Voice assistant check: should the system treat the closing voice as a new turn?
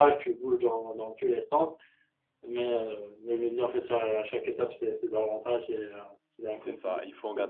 Yes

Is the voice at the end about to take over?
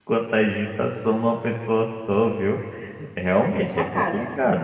No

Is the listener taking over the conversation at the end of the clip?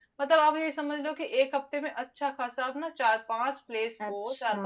No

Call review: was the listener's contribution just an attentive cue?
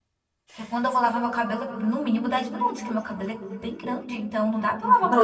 No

